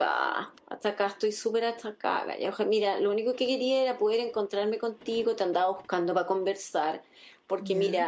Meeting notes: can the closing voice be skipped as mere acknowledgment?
Yes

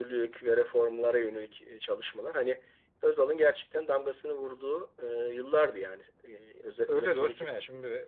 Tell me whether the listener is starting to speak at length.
Yes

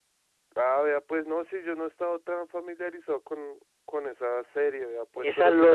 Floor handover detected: Yes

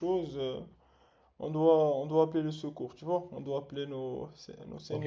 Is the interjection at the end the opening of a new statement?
Yes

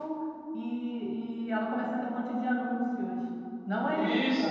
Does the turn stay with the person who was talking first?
No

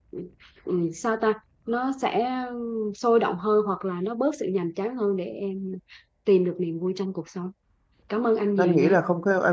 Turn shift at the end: Yes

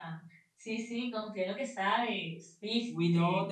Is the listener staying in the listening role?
No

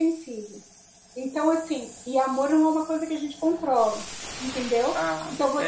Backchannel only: Yes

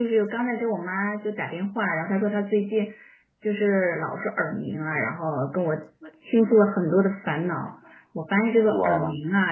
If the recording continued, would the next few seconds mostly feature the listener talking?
No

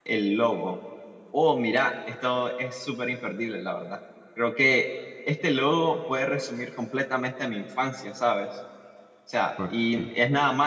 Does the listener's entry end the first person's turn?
No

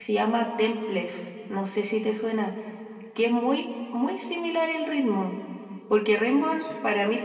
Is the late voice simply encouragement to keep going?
Yes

